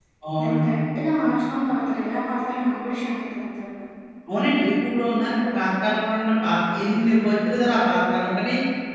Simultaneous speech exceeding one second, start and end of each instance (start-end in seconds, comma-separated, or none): none